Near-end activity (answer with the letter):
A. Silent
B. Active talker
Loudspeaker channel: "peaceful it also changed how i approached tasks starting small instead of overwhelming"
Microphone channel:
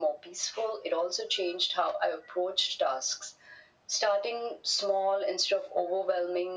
A